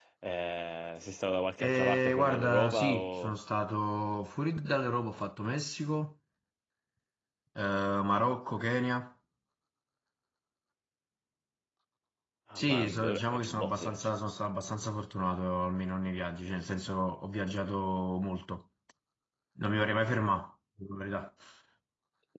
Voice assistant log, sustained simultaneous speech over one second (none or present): present